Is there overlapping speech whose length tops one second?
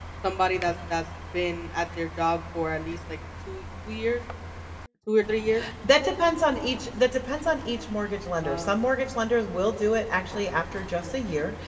No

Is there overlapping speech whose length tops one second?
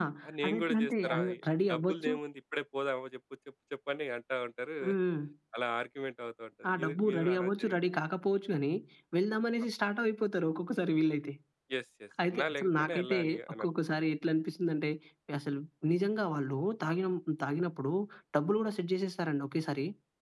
Yes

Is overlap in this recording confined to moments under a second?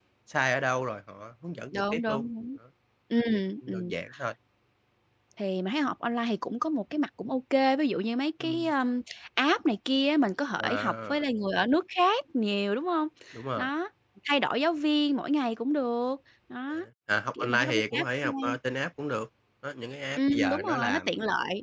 No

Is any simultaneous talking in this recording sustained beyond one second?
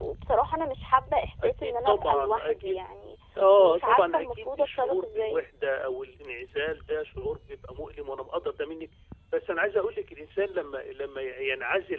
Yes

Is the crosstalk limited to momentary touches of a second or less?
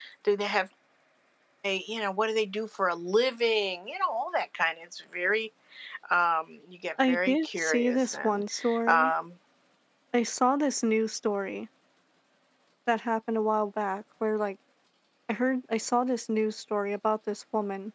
No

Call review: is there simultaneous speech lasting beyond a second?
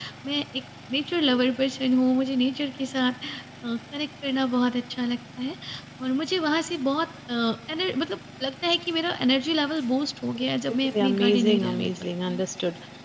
Yes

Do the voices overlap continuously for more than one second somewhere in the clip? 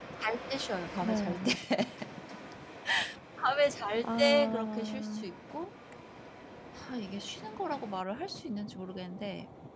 Yes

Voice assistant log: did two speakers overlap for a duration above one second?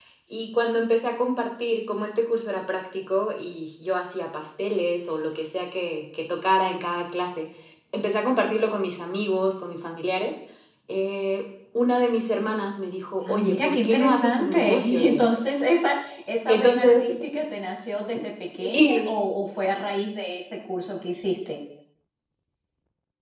Yes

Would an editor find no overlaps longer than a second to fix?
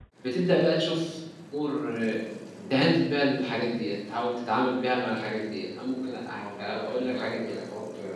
No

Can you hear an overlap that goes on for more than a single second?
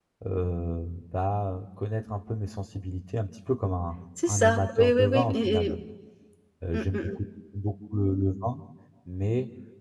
Yes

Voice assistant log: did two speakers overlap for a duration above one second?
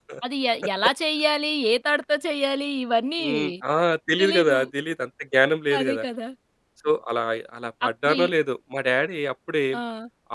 No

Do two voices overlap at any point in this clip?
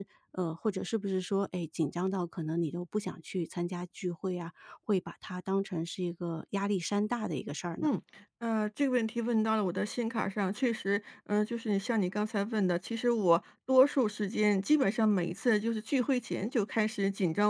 No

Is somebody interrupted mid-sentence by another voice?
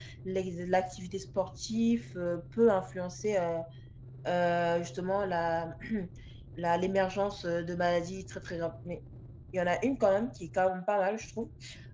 No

